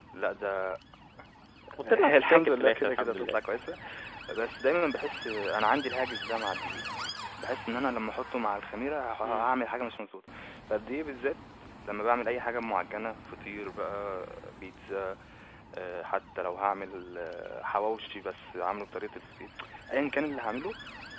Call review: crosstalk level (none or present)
present